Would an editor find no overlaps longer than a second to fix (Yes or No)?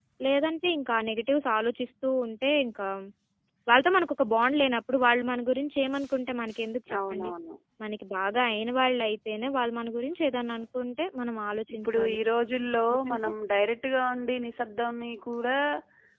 Yes